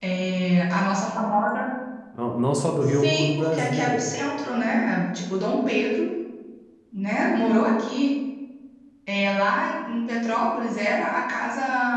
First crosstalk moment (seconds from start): 2.8 s

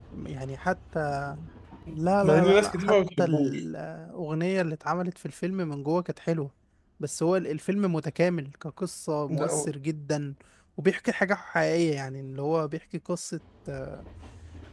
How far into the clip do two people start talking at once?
2.2 s

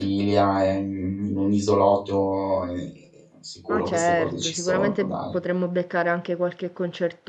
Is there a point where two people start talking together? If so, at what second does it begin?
3.7 s

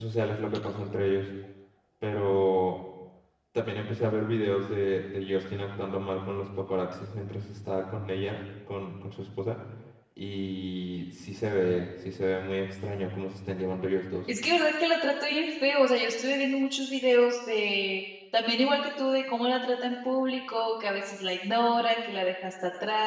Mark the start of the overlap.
none

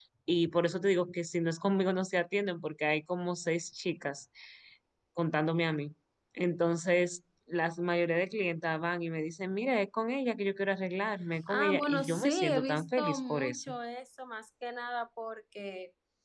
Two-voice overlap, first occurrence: 11.5 s

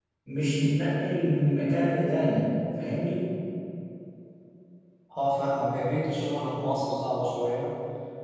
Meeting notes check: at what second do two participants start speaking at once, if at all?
none

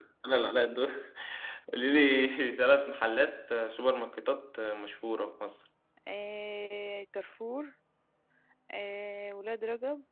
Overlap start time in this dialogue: none

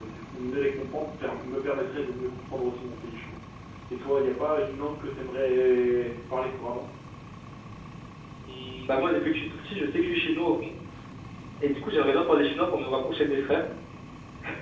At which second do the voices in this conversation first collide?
none

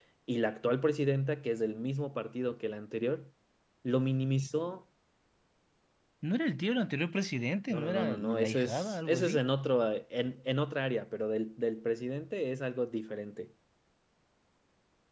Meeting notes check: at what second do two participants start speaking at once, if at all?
7.7 s

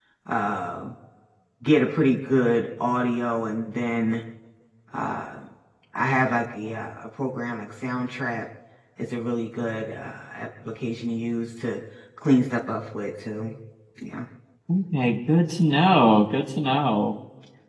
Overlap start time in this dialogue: none

